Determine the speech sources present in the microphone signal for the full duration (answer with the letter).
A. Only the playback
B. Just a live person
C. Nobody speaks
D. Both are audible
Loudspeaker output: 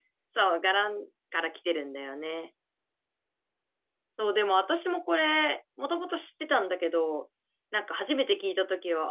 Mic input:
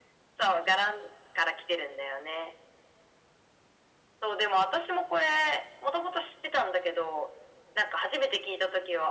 A